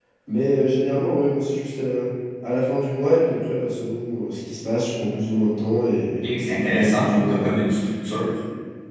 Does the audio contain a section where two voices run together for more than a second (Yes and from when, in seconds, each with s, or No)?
Yes, from 6.2 s